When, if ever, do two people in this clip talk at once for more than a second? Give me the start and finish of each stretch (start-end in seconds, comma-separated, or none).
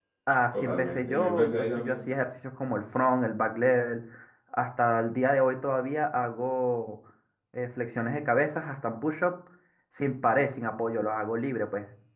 0.5-2.0